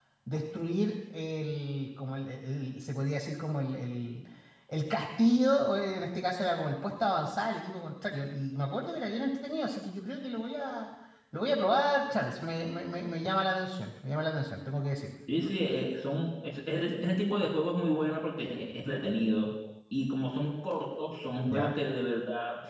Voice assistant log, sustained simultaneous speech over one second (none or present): none